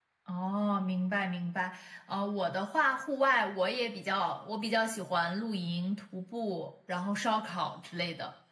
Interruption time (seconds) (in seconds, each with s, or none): none